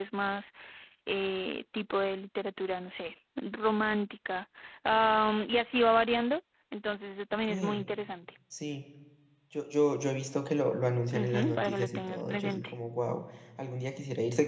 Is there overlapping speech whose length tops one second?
Yes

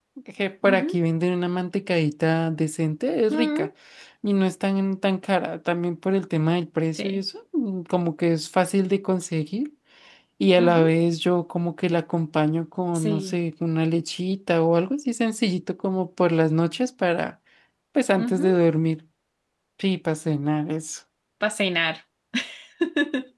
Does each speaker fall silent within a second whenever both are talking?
Yes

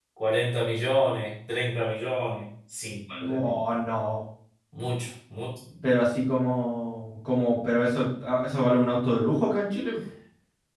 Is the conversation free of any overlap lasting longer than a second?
Yes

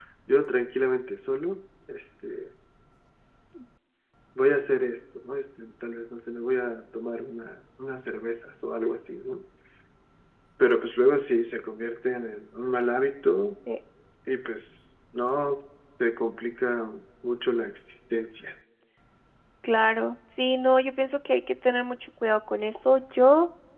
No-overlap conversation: Yes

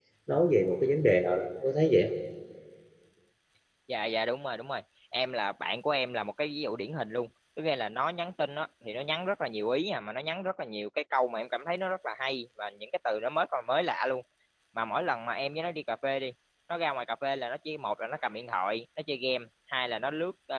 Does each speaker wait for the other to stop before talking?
Yes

